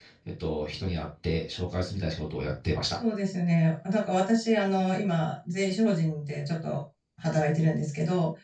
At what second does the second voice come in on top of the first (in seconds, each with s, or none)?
none